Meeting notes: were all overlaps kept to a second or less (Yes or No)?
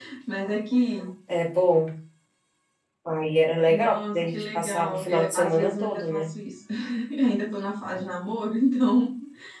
No